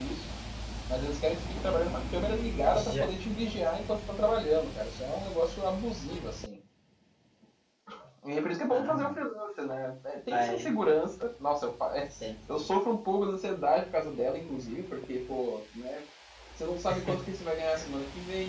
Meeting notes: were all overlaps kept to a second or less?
Yes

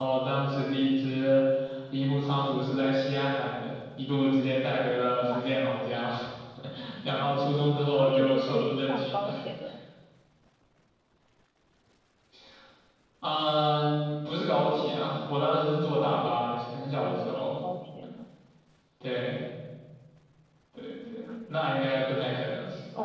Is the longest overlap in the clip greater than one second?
Yes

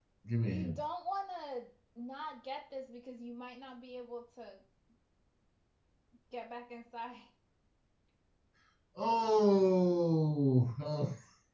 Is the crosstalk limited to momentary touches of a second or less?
Yes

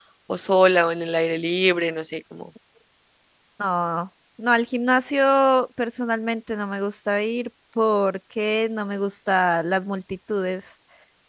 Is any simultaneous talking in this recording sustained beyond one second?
No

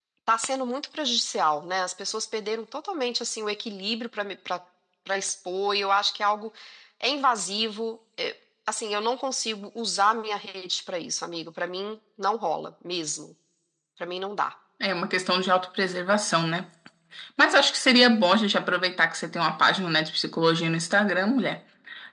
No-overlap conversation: Yes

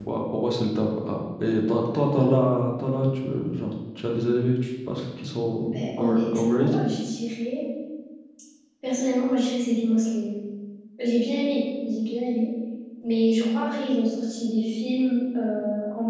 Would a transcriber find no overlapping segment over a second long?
No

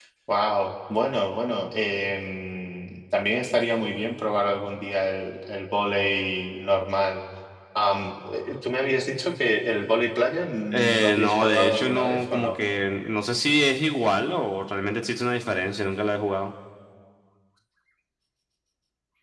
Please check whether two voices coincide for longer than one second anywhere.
Yes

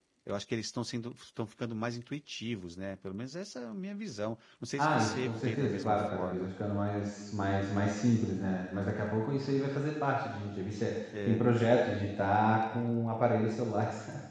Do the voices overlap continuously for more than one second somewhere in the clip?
Yes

